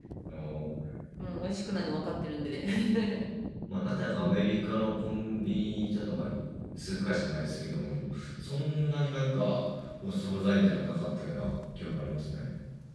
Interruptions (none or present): none